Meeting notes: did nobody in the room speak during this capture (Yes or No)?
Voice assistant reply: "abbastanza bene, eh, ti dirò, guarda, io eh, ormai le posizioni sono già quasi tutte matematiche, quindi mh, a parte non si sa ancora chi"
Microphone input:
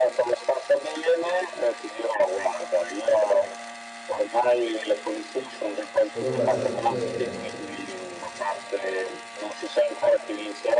No